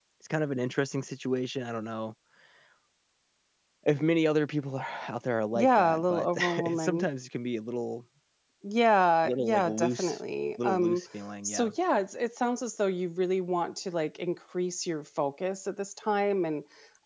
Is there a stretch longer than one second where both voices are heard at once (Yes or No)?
Yes